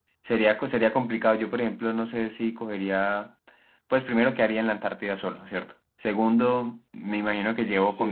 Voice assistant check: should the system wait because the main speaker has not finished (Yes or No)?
Yes